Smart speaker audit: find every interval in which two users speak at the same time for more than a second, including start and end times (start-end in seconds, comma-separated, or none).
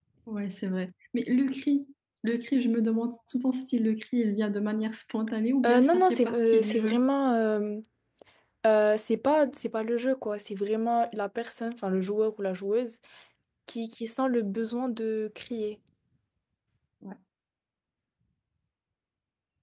5.7-7.0